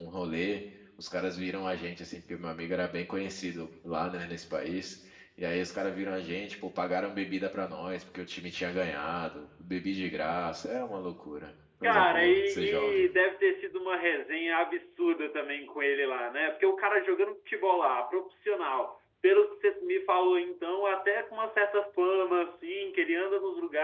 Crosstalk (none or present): present